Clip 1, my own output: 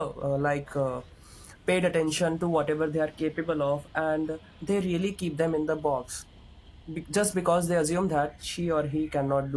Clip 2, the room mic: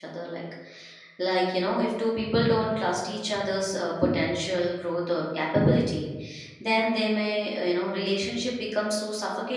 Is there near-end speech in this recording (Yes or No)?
Yes